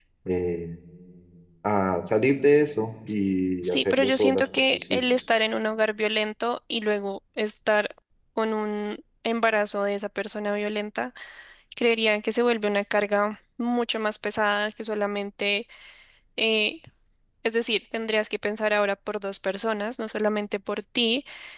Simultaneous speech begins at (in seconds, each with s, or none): 3.6 s